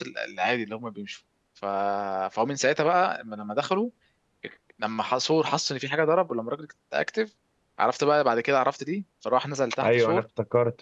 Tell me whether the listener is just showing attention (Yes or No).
No